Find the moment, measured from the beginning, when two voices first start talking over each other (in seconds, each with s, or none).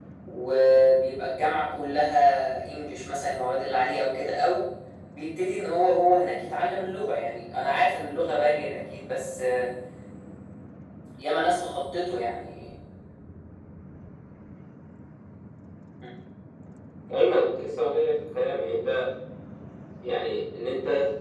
none